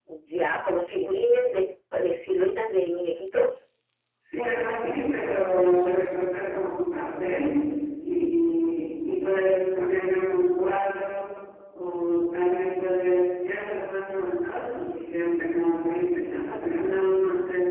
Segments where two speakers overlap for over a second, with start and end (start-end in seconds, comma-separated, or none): none